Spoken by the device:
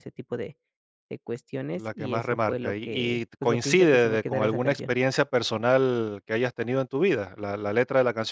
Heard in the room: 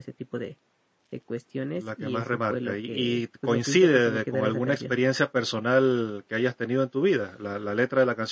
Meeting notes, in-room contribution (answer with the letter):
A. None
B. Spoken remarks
A